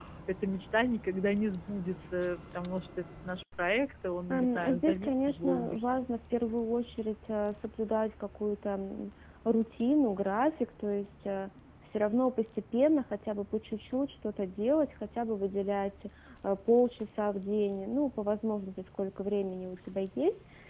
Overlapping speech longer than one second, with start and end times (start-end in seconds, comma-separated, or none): 4.3-6.0